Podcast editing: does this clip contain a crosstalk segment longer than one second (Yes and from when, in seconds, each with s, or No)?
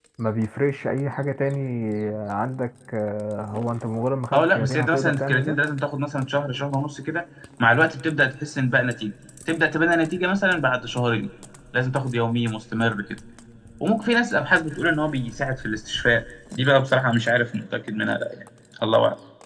Yes, from 4.3 s